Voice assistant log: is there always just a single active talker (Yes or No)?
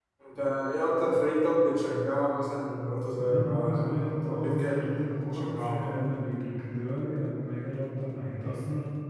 No